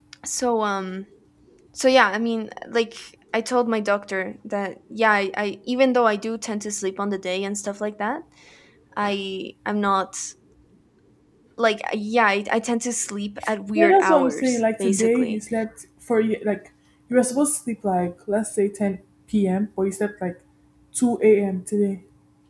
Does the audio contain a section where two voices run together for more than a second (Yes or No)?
Yes